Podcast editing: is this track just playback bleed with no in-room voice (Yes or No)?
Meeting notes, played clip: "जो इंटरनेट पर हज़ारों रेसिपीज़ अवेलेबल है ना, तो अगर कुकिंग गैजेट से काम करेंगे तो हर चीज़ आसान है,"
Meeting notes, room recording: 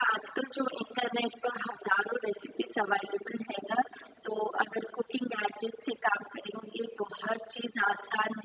Yes